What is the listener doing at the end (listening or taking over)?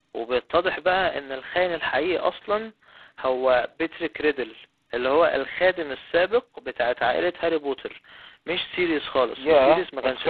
taking over